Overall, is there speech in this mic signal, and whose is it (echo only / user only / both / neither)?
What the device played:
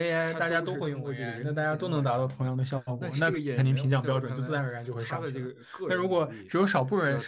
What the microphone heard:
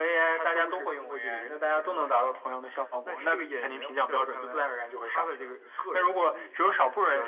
echo only